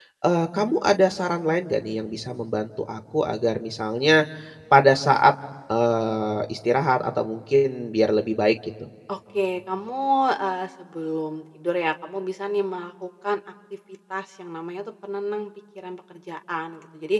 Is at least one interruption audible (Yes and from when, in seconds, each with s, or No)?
No